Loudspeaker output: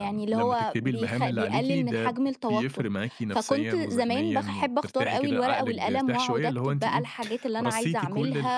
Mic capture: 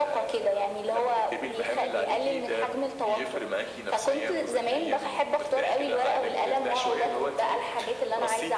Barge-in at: none

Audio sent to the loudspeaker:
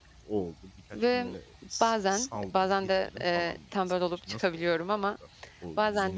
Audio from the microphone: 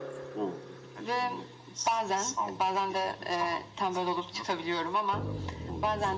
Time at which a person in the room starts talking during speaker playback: none

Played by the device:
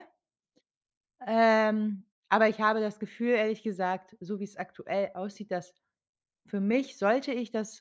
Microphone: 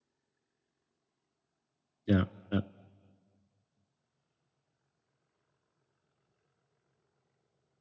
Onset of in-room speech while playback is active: 2.1 s

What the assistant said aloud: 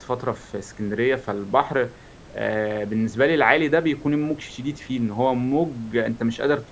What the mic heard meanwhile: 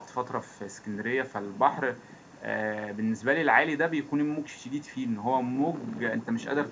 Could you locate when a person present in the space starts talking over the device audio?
none

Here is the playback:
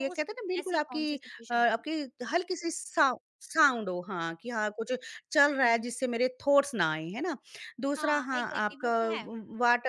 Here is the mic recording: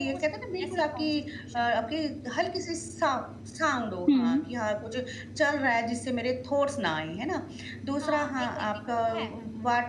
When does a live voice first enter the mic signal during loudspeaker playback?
4.1 s

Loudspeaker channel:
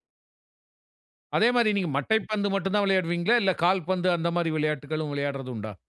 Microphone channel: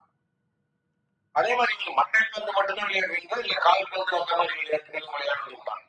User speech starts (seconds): none

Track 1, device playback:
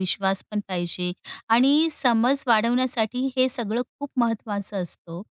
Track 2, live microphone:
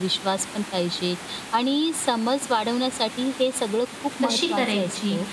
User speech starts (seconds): 4.2 s

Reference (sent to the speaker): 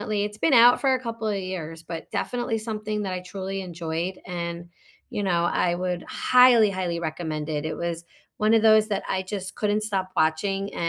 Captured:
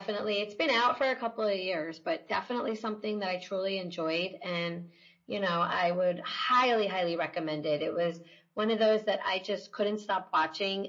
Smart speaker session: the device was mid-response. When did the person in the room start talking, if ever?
none

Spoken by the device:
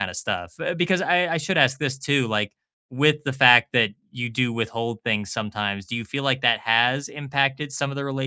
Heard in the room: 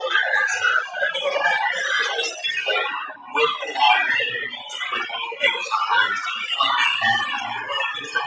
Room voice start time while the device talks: none

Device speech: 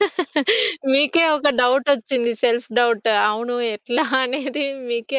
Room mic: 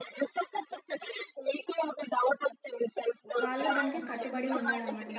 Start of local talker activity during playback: 3.5 s

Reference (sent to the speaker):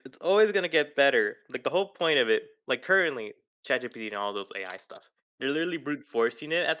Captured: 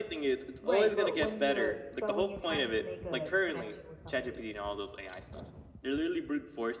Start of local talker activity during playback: 0.6 s

